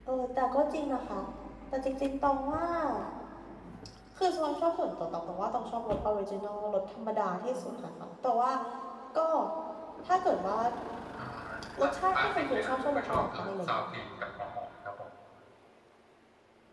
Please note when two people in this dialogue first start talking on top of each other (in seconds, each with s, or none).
11.9 s